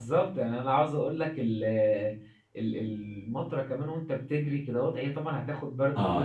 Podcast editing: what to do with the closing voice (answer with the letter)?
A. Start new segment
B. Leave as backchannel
A